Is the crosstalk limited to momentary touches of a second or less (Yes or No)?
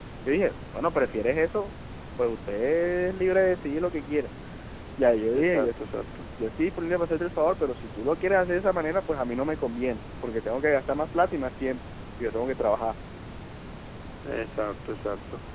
Yes